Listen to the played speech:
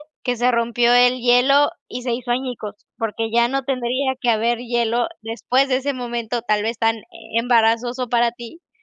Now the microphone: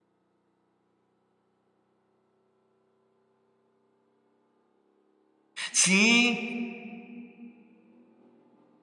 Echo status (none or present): none